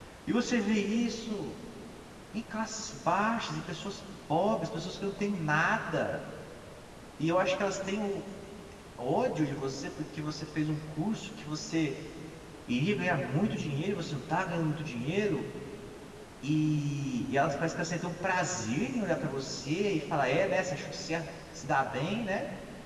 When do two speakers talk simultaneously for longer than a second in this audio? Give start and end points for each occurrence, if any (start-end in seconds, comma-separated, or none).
none